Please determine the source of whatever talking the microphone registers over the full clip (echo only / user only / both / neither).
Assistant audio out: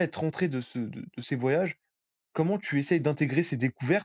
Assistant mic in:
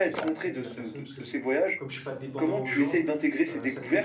both